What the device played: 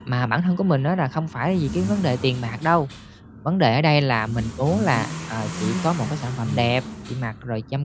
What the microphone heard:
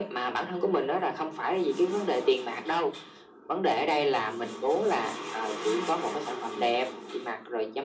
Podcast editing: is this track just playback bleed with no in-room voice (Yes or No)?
Yes